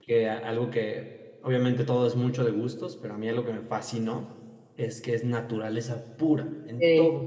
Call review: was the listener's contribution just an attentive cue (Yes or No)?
Yes